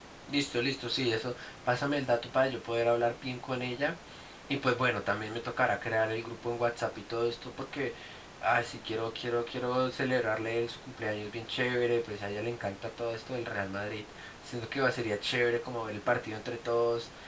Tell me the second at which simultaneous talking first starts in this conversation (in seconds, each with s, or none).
none